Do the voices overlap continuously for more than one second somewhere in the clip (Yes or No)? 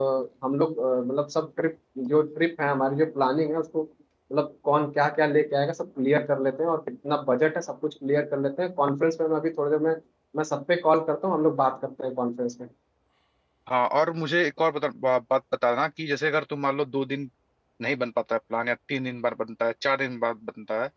No